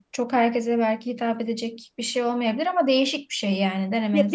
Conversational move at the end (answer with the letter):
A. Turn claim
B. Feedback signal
A